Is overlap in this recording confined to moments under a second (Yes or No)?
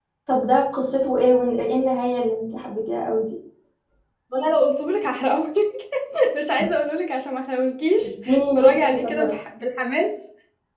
No